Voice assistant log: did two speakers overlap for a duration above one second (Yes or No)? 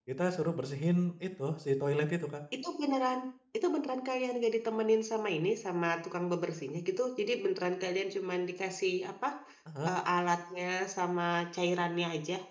No